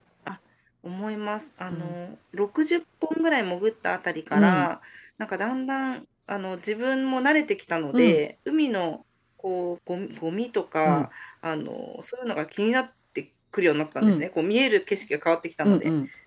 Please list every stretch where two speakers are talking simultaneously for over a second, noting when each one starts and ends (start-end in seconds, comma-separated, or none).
none